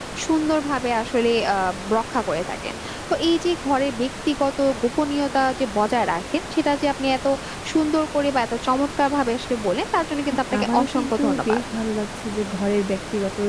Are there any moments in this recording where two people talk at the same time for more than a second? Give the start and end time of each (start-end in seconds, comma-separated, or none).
10.3-11.6